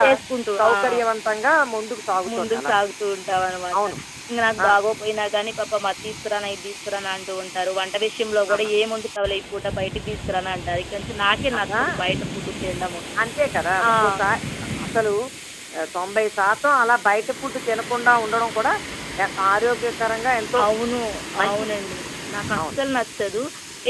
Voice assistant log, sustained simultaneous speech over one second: none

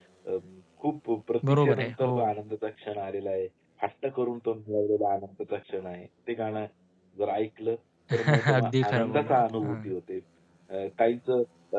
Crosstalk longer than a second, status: present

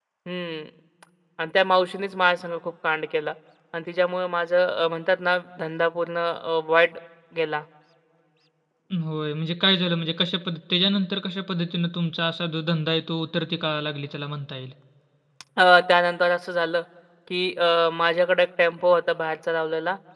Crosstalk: none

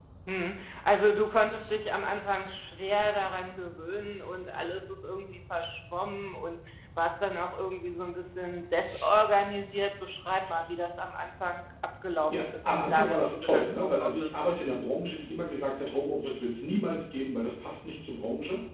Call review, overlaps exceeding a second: present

